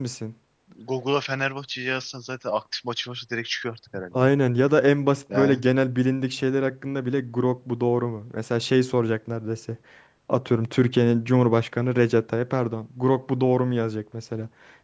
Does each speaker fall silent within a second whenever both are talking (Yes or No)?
Yes